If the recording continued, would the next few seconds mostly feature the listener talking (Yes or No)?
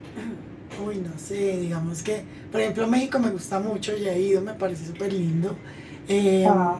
No